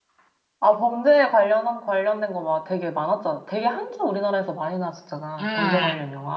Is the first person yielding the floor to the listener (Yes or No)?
Yes